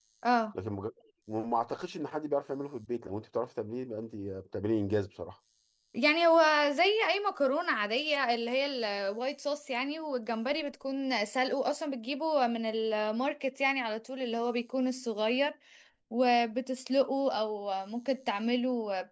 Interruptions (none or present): none